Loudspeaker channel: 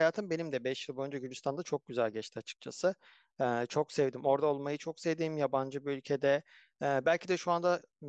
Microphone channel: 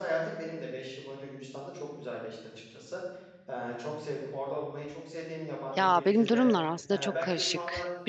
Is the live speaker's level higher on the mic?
Yes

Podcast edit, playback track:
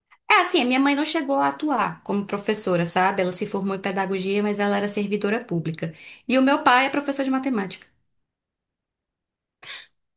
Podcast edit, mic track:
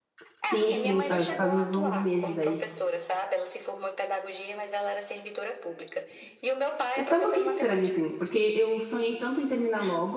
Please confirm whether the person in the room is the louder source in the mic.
Yes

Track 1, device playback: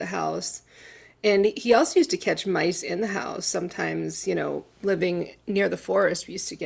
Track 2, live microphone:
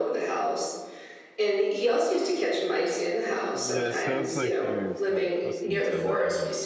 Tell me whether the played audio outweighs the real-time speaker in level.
Yes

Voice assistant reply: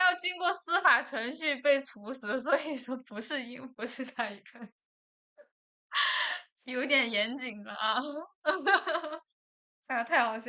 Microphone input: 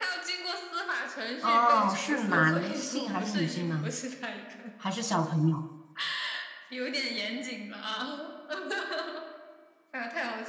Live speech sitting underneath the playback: No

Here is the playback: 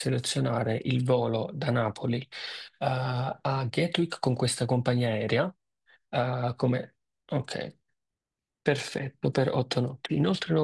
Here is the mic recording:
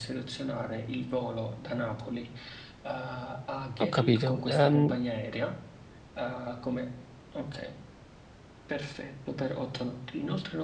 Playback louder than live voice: No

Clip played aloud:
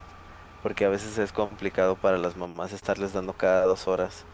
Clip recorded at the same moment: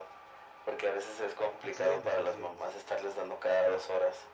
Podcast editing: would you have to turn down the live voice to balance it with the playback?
No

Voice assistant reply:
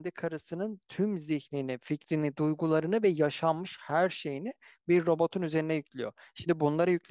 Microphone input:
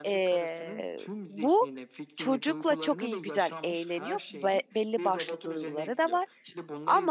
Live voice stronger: Yes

